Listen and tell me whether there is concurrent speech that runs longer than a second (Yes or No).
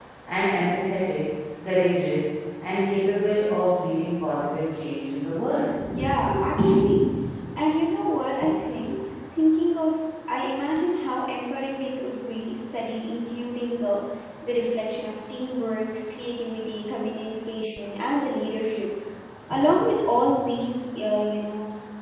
No